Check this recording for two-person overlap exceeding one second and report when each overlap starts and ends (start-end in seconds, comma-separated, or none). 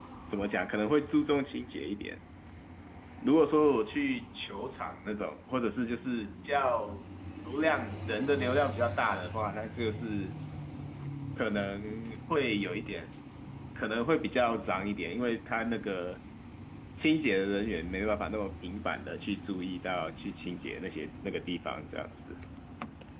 none